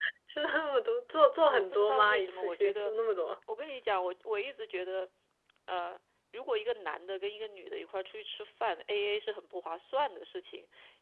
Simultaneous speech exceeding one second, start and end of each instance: 1.4-2.9

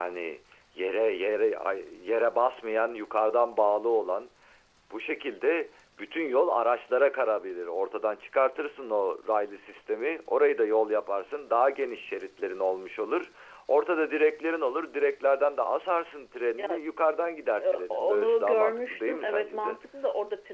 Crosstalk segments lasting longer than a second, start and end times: 17.6-19.8

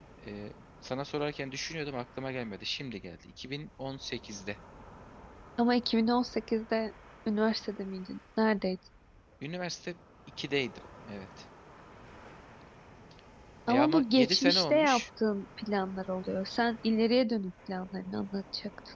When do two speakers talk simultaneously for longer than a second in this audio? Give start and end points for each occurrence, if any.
13.7-15.0

